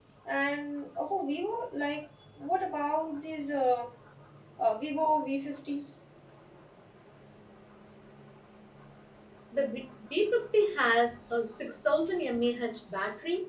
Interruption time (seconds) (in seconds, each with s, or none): none